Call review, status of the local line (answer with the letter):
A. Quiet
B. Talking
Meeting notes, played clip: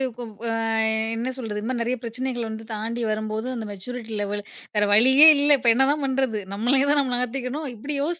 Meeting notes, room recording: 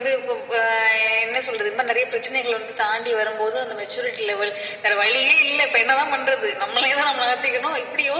A